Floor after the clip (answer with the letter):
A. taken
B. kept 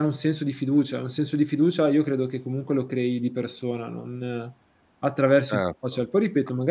A